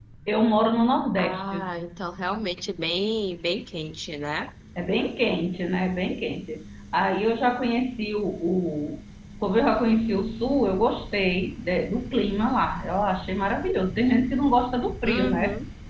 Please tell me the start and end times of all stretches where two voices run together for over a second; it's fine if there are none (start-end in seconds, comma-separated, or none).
none